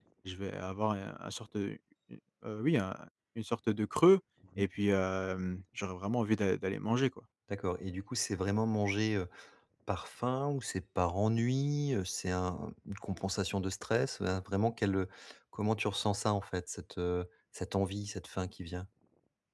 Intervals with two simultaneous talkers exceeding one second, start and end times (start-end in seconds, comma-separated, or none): none